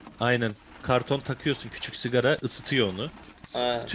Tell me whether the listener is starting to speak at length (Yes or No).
Yes